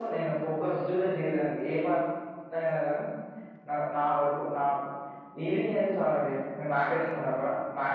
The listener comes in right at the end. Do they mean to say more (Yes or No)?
No